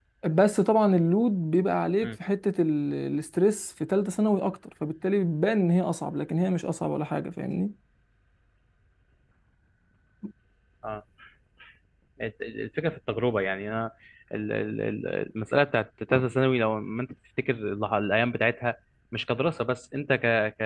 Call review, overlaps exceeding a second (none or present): none